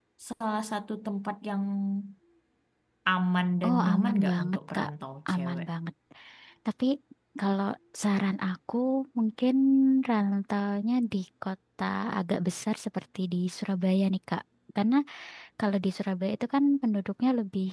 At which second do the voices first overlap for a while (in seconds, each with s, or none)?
3.6 s